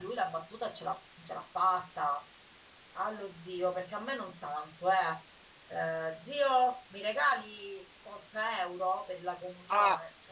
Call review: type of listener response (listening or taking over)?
taking over